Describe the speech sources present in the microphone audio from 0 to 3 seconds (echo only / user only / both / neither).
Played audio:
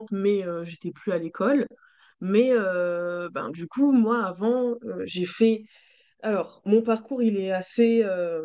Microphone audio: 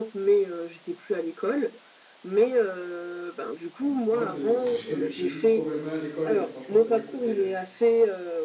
echo only